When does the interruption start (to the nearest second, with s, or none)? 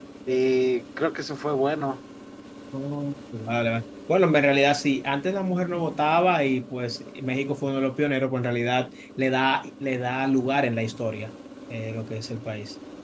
none